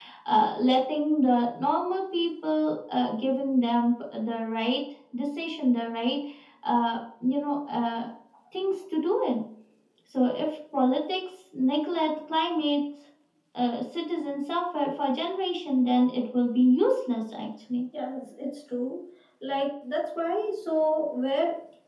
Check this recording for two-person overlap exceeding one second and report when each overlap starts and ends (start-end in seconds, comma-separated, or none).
none